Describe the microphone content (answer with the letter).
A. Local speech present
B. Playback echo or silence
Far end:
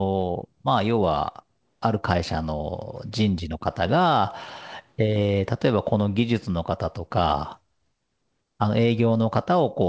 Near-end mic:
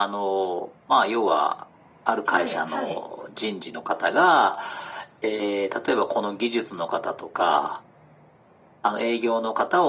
A